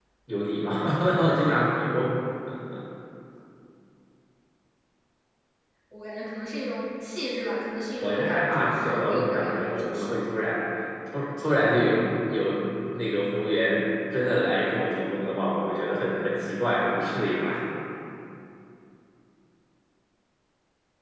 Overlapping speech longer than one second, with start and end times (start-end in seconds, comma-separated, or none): 8.0-10.2